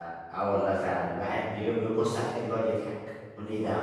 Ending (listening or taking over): listening